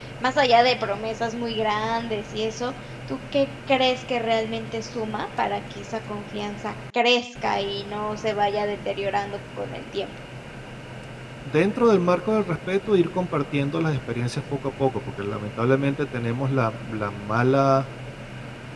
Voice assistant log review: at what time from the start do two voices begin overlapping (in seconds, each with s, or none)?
none